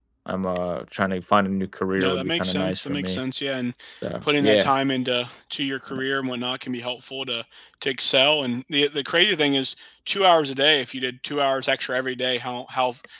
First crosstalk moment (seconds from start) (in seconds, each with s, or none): 2.0 s